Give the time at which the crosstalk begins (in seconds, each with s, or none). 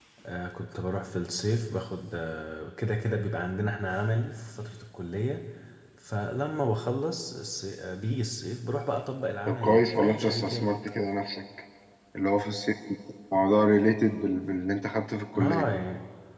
9.5 s